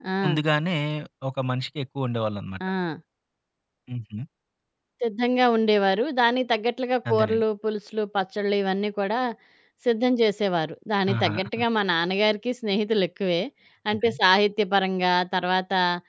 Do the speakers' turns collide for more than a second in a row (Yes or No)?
No